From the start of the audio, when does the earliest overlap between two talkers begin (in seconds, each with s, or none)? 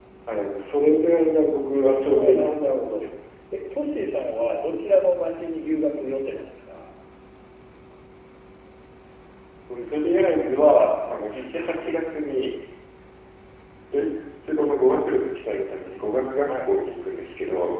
1.8 s